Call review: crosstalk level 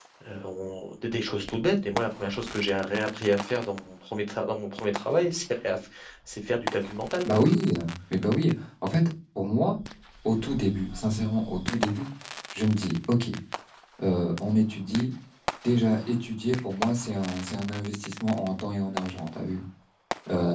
none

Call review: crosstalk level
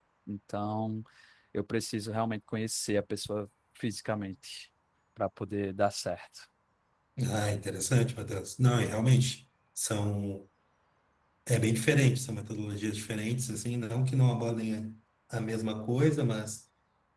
none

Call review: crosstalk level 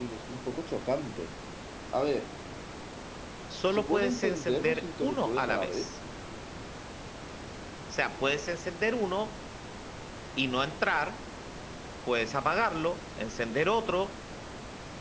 present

